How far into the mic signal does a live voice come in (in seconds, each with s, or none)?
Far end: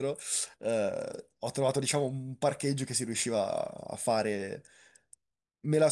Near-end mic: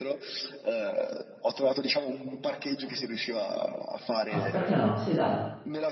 4.2 s